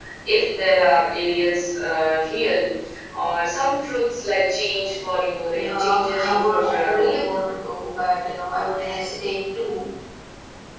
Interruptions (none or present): present